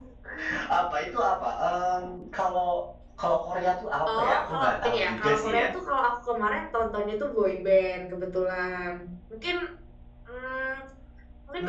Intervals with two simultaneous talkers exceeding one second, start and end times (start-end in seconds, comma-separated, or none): 4.1-5.7